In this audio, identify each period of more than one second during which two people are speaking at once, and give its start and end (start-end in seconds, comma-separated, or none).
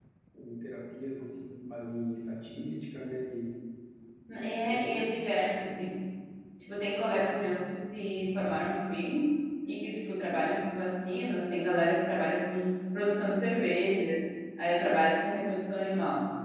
4.7-5.9